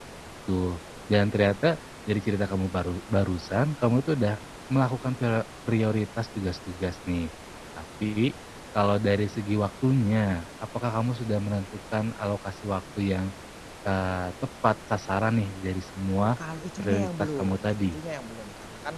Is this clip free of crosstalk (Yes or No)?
No